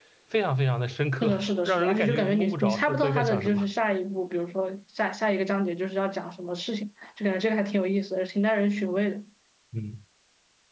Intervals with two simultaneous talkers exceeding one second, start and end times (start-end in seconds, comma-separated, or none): 1.2-3.6